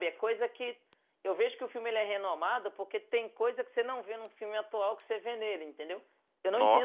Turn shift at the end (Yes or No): No